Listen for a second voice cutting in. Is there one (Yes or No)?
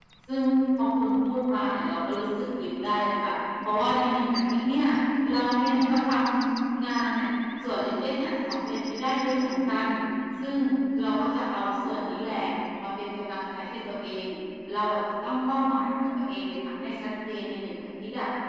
No